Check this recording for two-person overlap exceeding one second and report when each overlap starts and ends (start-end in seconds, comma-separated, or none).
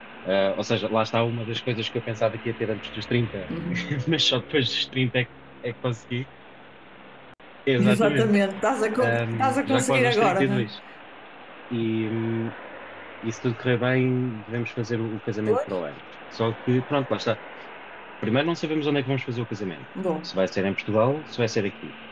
9.0-10.6